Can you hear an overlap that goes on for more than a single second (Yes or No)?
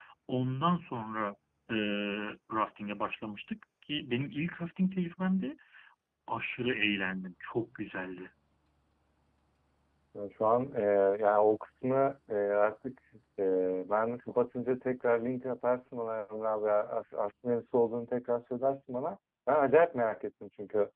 No